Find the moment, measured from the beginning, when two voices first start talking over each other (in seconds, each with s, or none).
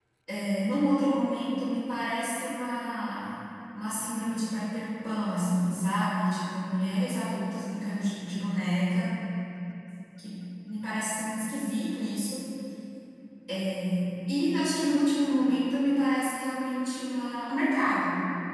none